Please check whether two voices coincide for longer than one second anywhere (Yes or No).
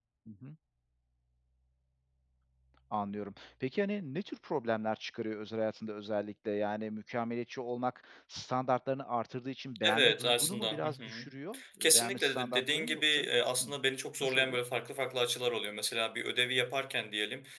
Yes